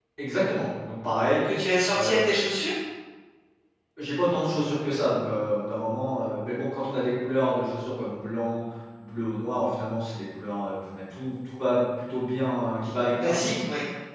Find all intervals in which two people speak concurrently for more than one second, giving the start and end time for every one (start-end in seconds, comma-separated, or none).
none